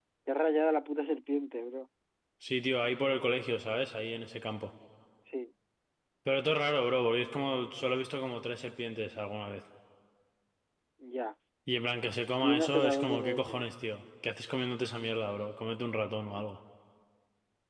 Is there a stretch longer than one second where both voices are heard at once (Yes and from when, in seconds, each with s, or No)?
Yes, from 12.4 s